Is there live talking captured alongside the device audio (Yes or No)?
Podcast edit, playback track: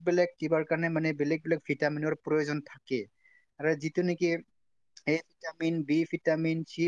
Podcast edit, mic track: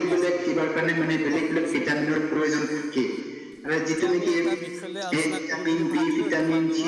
Yes